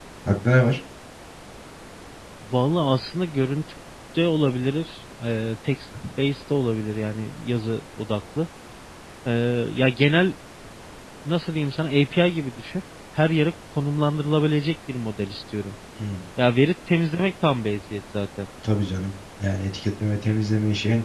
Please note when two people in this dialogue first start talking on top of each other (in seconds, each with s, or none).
none